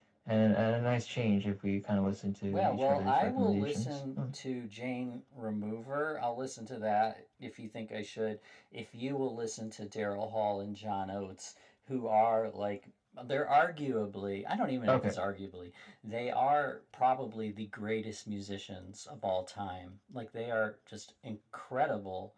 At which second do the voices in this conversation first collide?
2.5 s

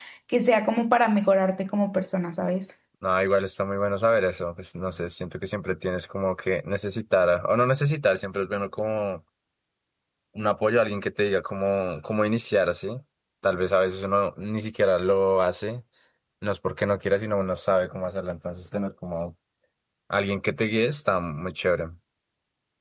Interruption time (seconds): none

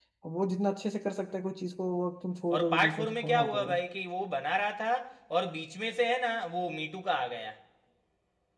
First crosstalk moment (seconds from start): 2.5 s

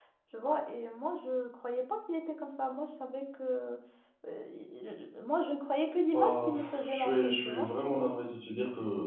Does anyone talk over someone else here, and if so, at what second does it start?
6.1 s

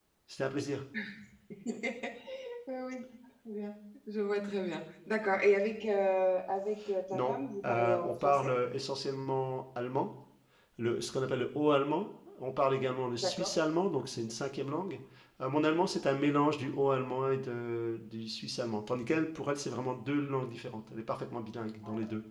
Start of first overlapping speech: 7.1 s

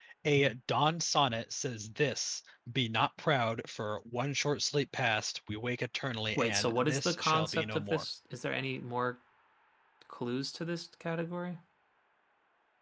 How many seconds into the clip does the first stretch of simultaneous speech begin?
6.4 s

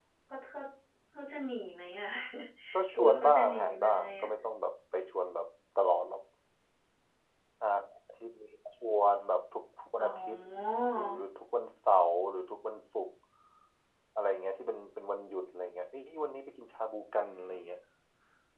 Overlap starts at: 2.9 s

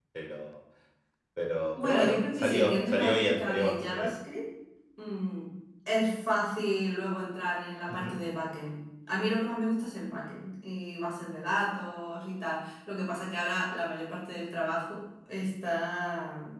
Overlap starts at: 1.8 s

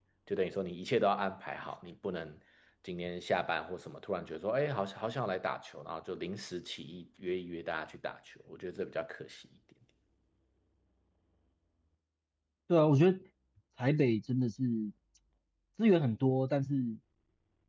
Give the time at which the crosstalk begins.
none

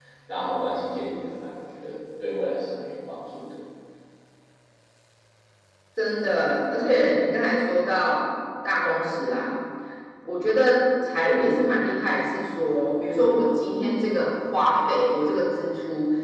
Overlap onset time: none

